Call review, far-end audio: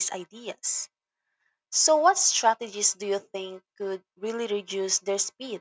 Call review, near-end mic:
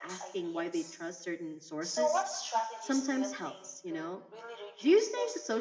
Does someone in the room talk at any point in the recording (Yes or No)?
Yes